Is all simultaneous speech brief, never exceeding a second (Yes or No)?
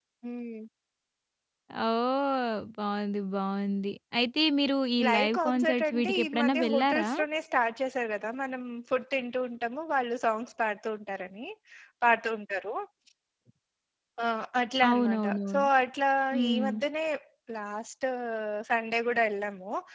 No